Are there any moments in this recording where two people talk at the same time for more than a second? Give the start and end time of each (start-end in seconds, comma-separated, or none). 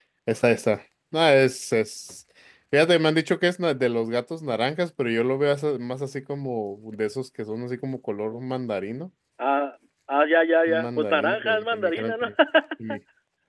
10.7-12.3